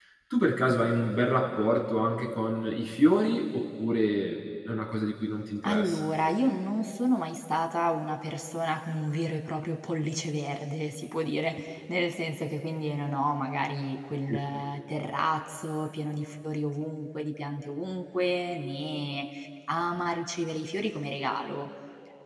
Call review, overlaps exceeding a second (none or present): none